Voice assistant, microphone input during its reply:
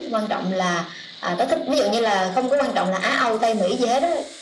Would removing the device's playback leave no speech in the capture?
Yes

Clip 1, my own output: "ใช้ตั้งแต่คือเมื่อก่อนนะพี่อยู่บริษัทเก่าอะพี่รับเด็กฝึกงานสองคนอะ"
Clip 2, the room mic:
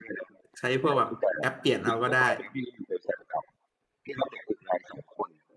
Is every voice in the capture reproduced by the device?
No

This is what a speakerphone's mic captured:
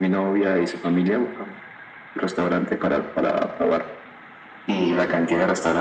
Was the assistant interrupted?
No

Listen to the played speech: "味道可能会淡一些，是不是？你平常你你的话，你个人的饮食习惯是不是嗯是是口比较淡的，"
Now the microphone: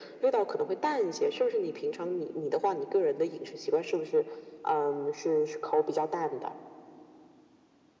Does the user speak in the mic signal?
No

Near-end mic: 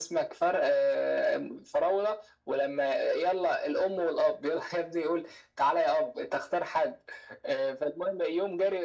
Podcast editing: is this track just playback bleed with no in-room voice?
Yes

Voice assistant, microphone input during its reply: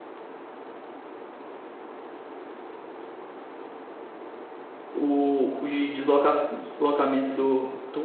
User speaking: Yes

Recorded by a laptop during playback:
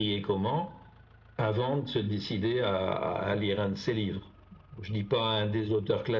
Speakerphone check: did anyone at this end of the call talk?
Yes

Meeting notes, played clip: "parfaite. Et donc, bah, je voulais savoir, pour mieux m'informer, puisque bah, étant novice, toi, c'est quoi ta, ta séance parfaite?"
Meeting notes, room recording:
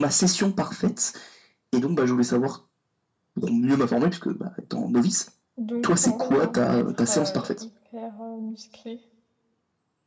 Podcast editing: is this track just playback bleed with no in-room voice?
No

